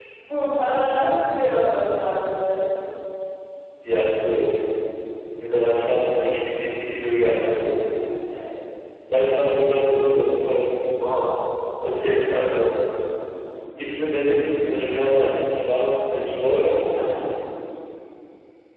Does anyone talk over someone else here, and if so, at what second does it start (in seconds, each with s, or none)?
none